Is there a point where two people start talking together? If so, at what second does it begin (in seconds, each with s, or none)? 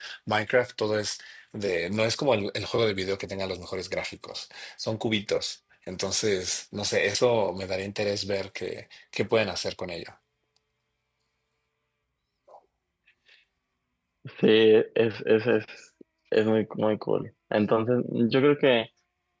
none